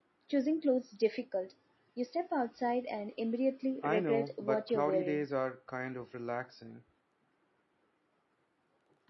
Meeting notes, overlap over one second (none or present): present